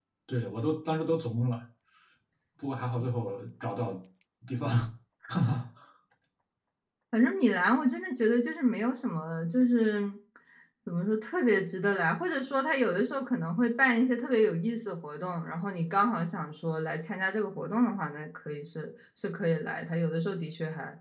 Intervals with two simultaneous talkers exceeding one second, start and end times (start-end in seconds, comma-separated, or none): none